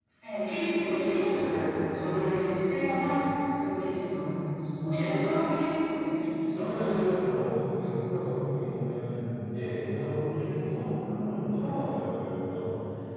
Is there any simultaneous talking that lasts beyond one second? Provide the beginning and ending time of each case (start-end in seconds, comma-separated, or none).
none